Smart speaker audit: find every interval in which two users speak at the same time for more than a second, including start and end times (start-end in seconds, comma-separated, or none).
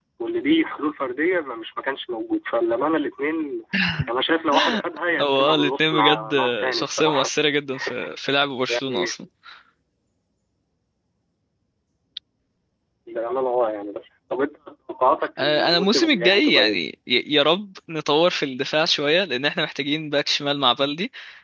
5.2-7.3, 15.4-16.8